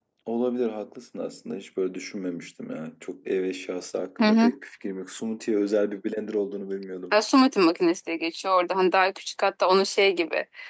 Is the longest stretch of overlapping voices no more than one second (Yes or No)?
Yes